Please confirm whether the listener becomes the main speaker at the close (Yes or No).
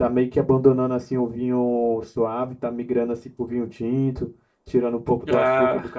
No